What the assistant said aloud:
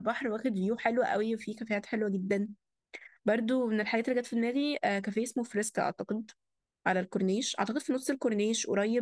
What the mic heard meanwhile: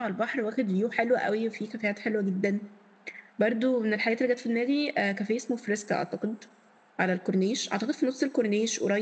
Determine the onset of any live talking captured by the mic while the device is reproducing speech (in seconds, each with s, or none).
none